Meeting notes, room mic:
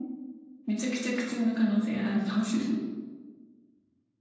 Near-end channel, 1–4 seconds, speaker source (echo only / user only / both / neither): echo only